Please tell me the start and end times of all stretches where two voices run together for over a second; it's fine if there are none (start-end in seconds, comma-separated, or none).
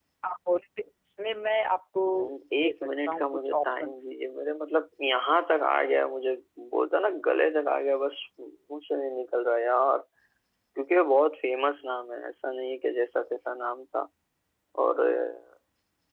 2.6-4.0